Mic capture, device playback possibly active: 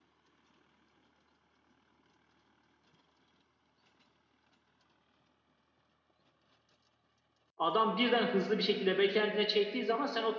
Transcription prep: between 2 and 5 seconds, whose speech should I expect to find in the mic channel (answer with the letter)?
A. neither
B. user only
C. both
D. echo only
A